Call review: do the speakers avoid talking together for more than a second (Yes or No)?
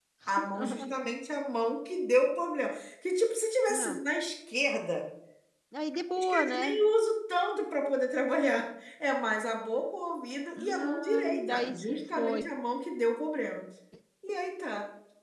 No